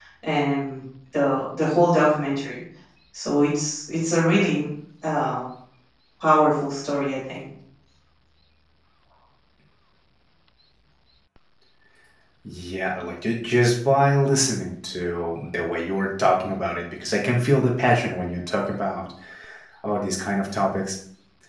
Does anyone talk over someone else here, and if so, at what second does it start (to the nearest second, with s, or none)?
none